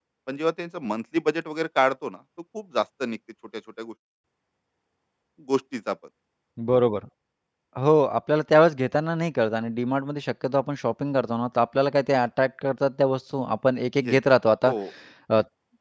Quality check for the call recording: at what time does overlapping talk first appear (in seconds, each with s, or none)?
none